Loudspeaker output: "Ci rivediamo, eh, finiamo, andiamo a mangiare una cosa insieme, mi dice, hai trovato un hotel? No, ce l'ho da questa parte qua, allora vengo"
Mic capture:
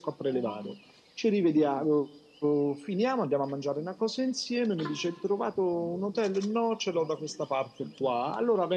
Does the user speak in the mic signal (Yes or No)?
No